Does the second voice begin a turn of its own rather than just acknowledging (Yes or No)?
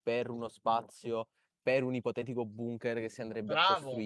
Yes